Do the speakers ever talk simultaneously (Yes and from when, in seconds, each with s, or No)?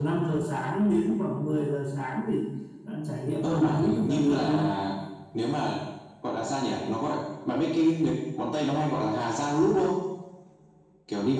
Yes, from 3.4 s